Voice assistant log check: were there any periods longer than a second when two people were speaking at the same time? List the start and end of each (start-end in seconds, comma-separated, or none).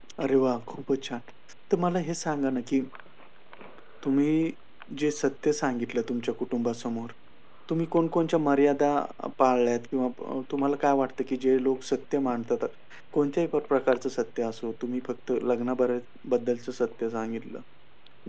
none